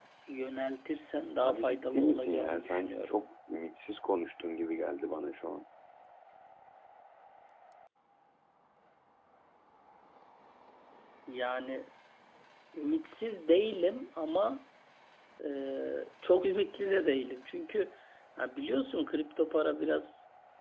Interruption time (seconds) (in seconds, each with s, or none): 1.4 s